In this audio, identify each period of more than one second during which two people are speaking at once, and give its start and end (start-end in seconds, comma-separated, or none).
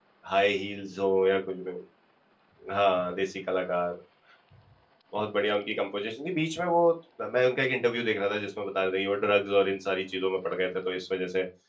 none